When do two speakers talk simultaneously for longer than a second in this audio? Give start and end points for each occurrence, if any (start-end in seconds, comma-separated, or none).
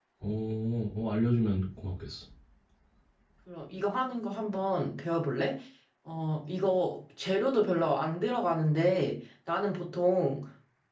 none